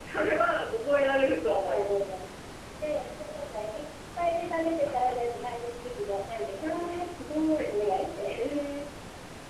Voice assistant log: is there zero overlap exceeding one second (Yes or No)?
Yes